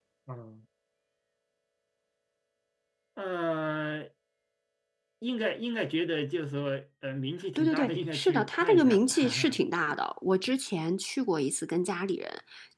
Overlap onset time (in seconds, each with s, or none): 7.6 s